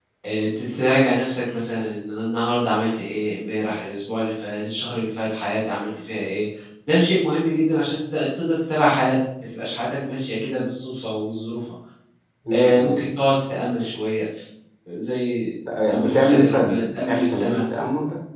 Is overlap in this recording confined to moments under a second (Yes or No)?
No